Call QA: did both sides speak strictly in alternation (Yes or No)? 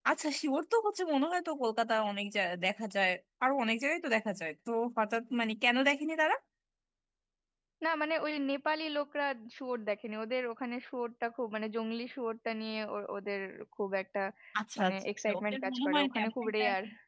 No